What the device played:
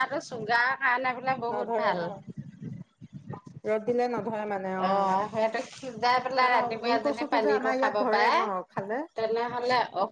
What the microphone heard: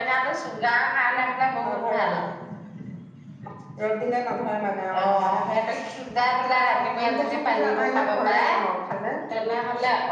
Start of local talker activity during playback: none

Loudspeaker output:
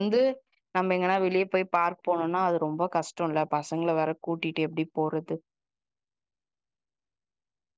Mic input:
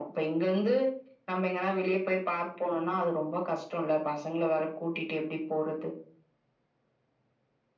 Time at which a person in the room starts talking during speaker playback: none

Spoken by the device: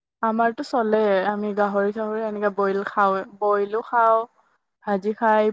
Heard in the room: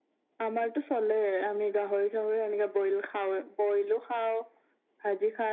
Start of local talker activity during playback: none

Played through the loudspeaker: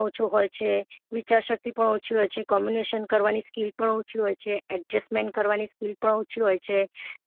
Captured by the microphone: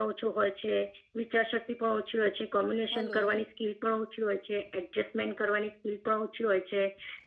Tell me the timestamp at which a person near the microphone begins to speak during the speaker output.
2.9 s

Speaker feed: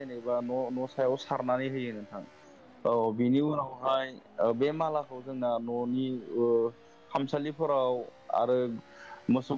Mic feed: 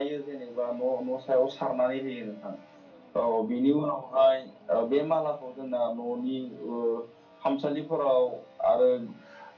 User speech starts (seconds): none

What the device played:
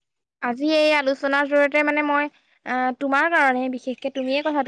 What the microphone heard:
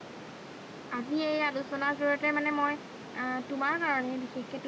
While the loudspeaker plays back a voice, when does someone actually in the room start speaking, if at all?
none

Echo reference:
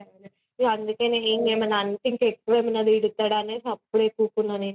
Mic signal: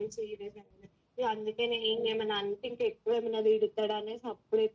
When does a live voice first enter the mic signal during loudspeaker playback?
none

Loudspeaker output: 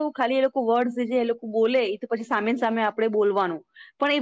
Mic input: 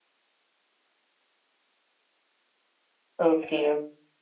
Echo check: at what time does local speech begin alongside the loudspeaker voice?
3.3 s

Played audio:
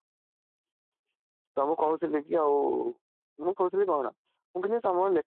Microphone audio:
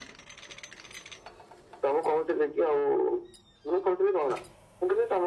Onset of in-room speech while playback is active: none

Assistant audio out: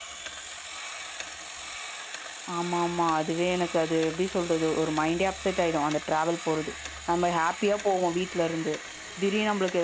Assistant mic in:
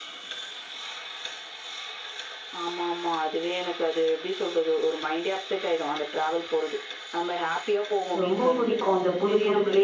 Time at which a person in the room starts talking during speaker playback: 8.2 s

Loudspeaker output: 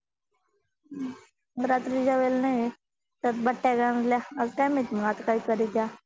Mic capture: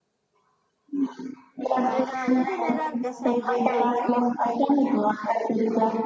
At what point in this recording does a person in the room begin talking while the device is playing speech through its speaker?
1.8 s

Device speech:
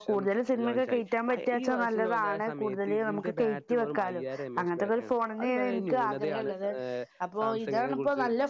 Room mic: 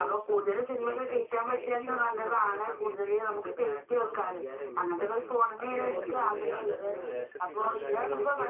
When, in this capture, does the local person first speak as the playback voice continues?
5.7 s

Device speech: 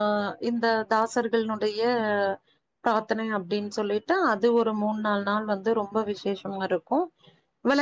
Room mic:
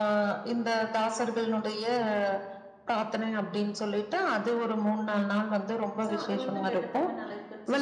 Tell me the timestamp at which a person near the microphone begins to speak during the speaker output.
6.0 s

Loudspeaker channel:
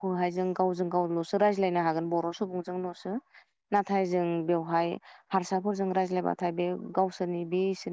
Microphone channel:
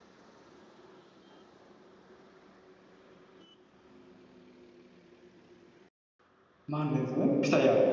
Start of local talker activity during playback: 6.7 s

